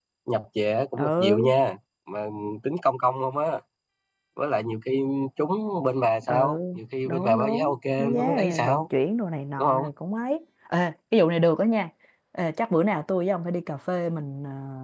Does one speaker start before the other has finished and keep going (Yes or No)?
Yes